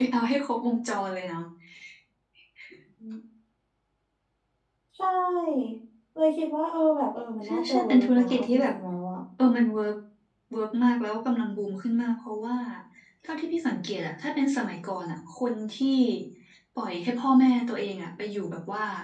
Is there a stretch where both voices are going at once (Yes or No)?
Yes